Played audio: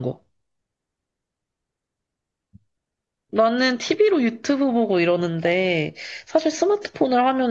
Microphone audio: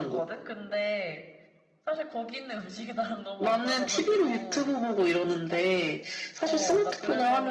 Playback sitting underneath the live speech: No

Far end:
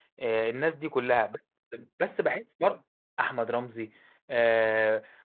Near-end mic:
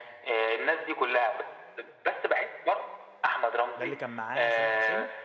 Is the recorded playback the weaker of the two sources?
No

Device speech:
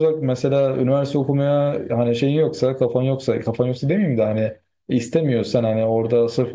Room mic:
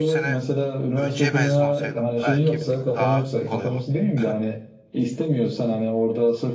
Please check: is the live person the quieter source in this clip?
Yes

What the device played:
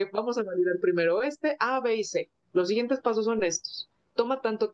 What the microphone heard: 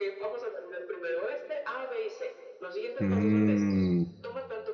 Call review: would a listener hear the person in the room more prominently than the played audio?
Yes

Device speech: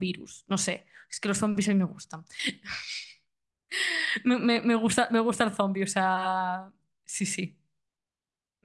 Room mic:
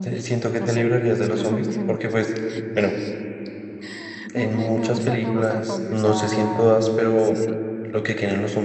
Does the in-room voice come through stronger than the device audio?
Yes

